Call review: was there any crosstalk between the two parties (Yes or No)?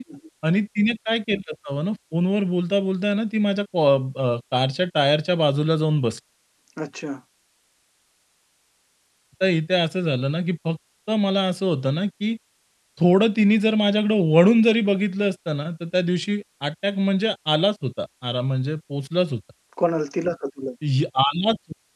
No